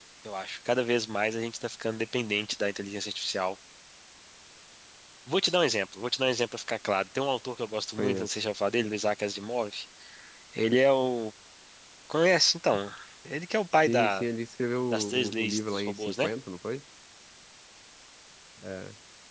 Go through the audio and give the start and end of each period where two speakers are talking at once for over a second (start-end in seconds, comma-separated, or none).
14.9-16.3